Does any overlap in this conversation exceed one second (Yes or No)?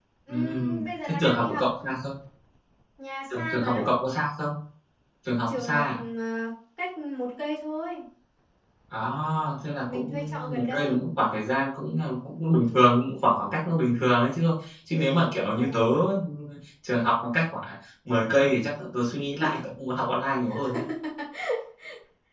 Yes